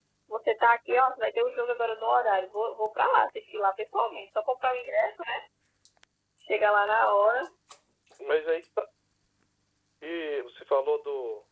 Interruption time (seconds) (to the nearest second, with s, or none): none